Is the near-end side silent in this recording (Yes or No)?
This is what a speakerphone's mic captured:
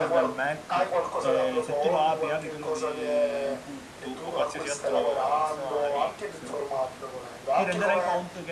No